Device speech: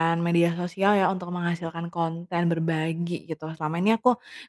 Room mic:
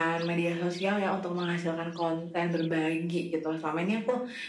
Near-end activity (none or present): none